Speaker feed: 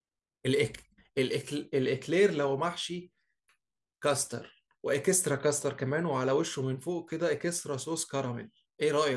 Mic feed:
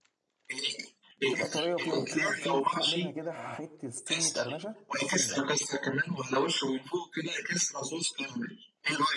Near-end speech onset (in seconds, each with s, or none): 1.2 s